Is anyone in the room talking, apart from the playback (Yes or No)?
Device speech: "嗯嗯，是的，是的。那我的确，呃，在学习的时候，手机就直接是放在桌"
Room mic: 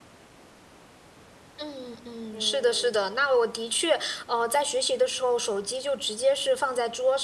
Yes